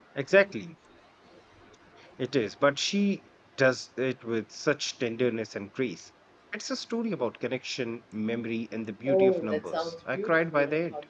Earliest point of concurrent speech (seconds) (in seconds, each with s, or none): 9.1 s